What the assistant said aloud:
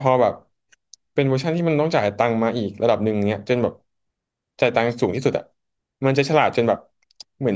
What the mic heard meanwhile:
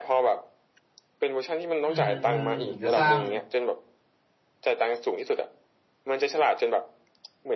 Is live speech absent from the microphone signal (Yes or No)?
No